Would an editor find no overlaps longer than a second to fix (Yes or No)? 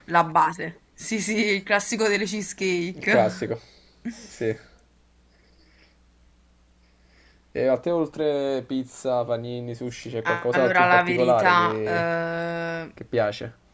No